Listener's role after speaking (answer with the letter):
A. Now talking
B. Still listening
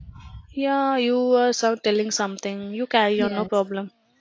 A